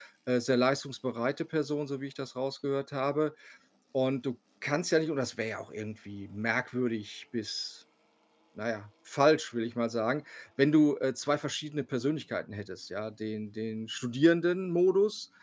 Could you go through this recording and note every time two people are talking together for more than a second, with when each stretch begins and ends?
none

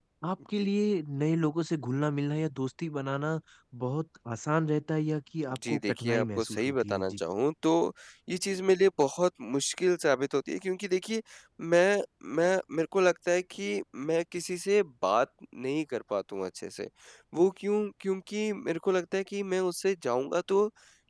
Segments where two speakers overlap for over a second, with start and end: 5.7-7.2

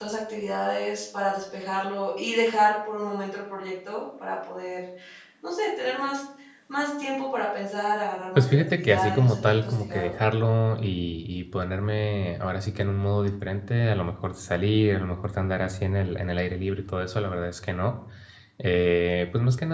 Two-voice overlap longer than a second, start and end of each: 8.3-10.2

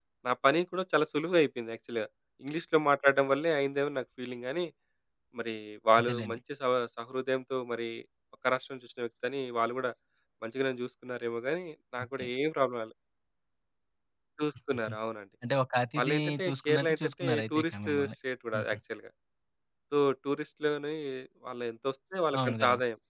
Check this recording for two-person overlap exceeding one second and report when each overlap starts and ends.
16.0-18.1

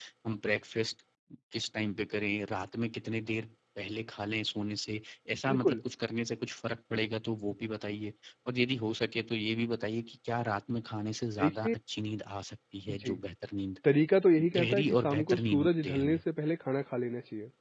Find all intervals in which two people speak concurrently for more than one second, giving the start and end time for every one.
14.4-16.2

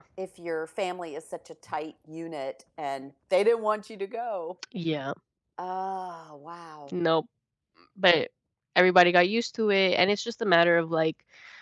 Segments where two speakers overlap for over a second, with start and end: none

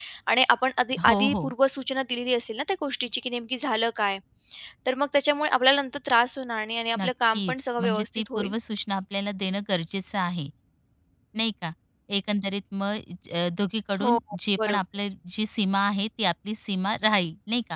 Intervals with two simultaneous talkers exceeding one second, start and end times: 7.0-8.5

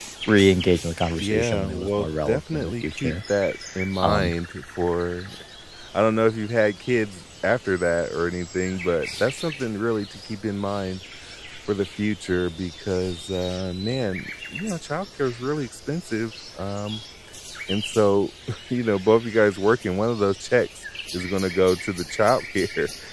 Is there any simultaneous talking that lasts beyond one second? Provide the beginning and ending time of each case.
1.2-3.1

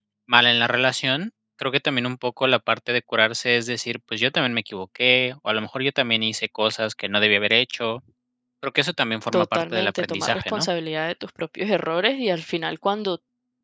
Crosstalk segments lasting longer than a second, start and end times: 9.3-10.7

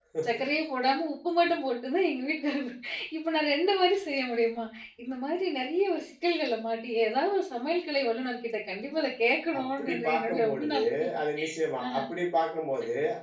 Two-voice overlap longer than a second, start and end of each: 9.6-10.8

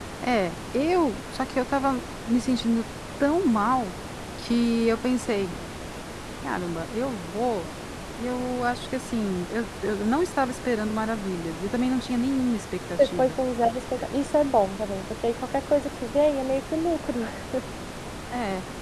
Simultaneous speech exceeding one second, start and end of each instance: none

